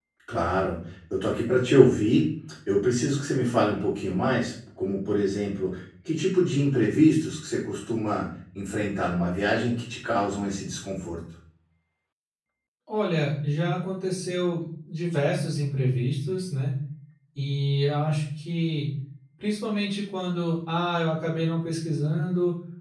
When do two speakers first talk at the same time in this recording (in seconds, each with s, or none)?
none